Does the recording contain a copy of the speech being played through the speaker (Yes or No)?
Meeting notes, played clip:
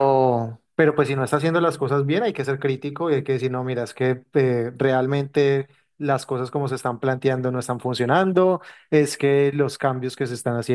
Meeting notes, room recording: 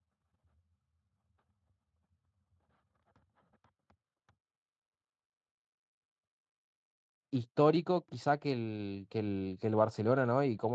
No